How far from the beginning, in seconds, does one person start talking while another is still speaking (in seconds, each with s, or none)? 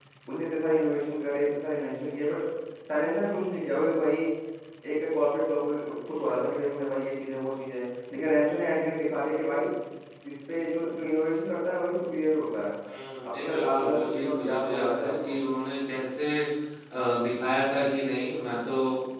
13.2 s